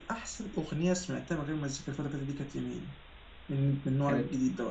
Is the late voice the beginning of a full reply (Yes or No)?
Yes